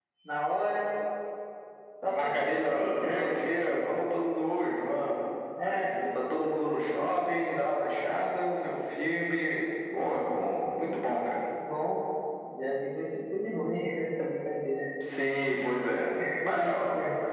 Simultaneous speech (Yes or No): Yes